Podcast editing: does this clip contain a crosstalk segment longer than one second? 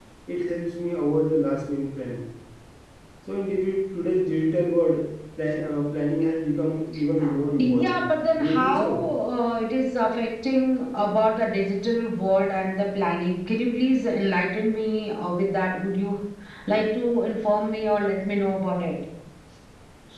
Yes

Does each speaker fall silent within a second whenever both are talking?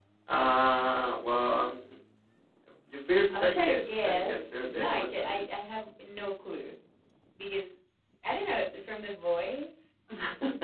No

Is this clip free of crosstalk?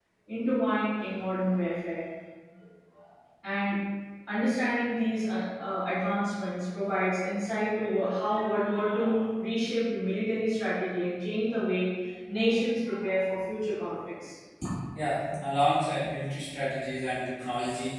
Yes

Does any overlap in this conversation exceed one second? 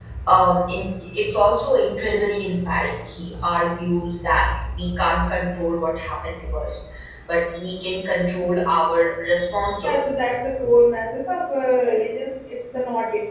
No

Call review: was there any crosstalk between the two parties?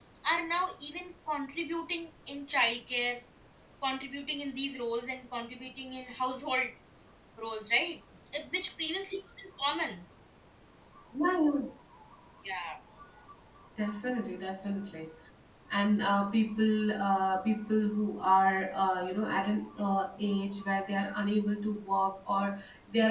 No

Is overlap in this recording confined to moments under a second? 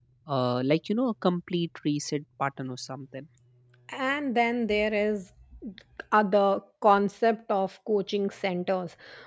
Yes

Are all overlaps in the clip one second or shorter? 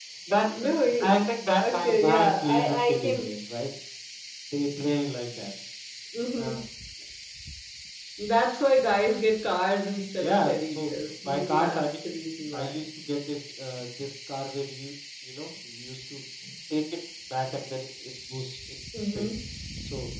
No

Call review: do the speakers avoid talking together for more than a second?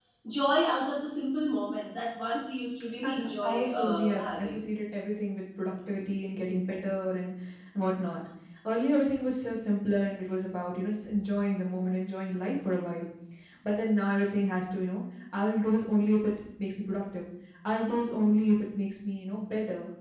No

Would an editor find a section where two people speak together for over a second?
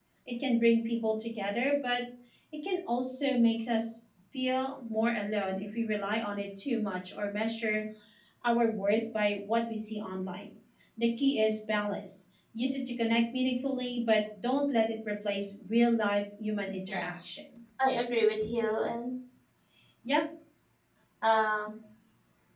No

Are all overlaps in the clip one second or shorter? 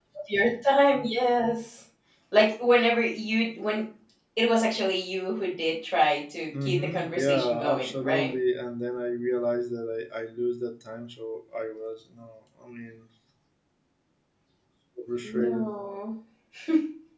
No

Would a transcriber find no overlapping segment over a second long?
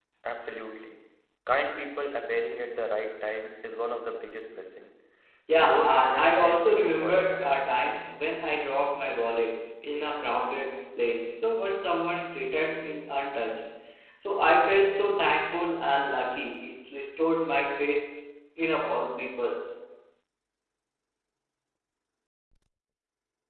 No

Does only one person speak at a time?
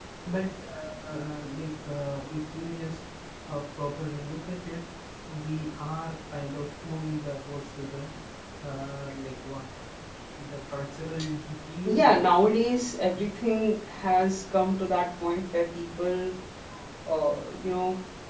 No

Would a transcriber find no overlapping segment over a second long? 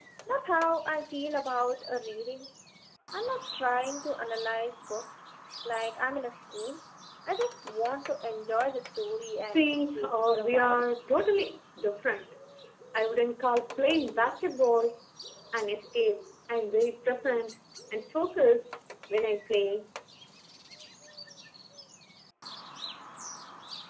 No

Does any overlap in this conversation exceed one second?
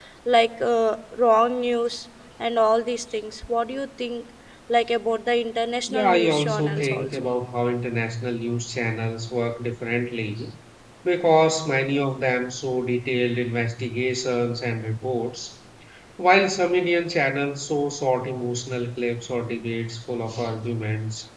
Yes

